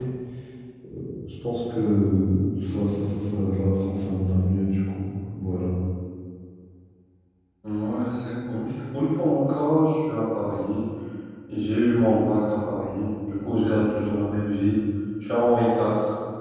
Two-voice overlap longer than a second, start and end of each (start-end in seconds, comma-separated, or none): none